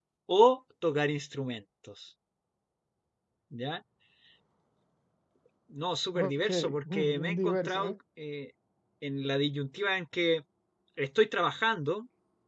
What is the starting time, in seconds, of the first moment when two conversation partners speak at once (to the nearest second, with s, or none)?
6 s